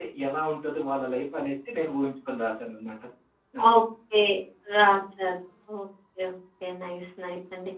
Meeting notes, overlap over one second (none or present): none